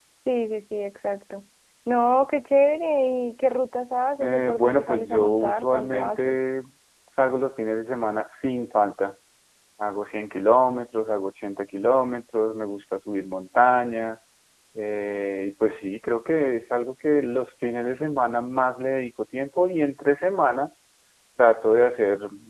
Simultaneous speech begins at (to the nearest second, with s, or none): 4 s